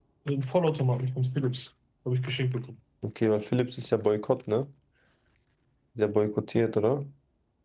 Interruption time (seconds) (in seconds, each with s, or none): none